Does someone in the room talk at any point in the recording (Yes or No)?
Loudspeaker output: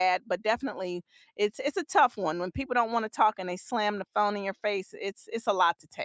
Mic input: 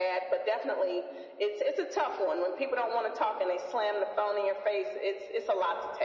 No